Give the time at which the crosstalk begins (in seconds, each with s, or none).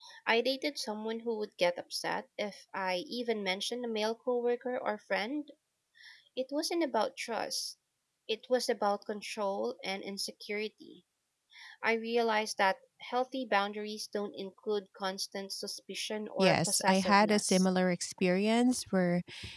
16.4 s